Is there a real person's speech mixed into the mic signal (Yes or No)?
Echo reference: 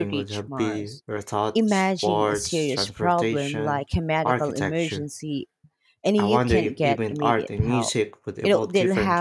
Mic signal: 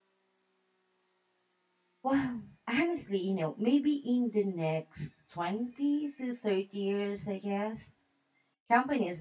Yes